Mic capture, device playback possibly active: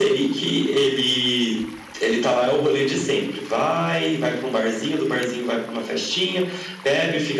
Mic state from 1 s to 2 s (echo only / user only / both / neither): echo only